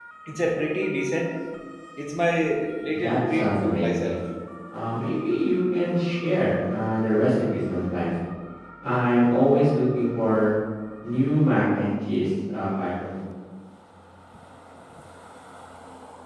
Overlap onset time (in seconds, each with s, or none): 2.9 s